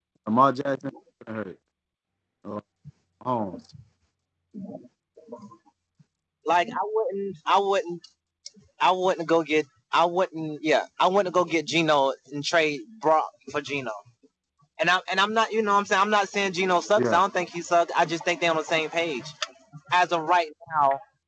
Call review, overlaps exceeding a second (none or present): none